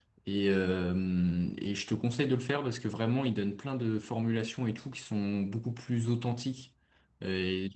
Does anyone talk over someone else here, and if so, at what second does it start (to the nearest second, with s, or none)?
none